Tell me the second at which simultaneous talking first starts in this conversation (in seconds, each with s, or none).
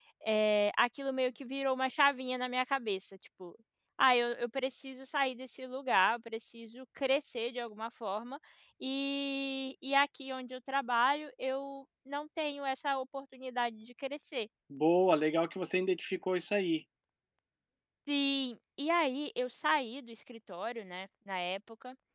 none